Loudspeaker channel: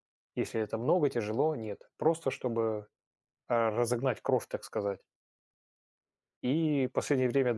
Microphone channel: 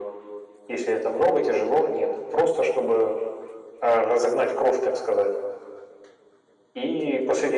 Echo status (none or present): present